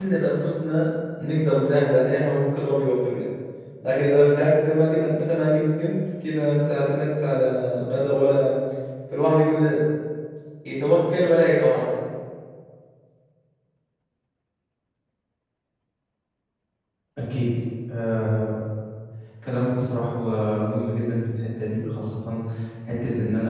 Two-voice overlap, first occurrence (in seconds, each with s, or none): none